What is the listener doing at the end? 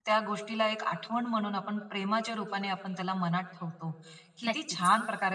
listening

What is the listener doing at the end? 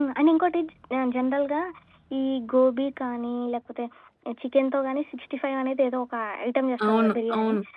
listening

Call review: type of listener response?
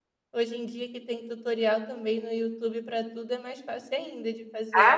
taking over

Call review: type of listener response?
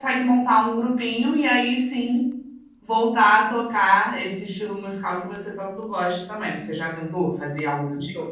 taking over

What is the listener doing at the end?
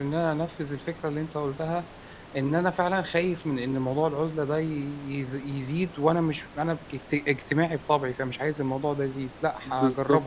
taking over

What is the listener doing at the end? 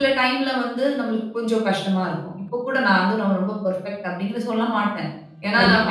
taking over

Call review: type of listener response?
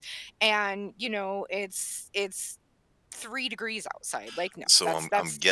taking over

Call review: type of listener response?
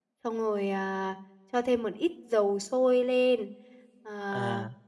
listening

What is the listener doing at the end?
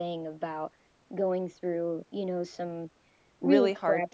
taking over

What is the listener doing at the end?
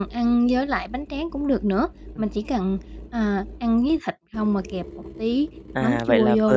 taking over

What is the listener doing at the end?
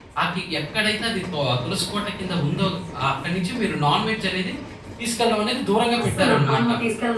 taking over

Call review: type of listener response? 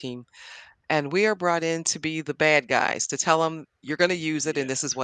listening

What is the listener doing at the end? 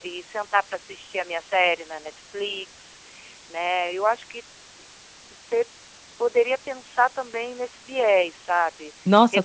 taking over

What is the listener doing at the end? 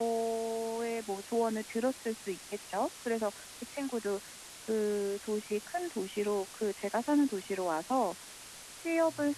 listening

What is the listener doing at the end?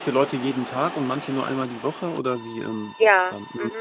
taking over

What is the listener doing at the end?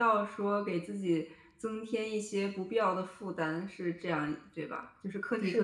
taking over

